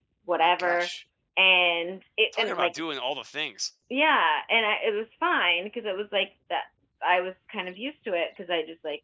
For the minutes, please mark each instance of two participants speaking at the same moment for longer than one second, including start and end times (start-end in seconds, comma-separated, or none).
none